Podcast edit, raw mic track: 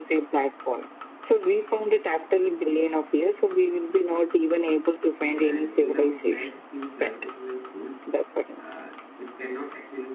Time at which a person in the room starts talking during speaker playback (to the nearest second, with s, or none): 5 s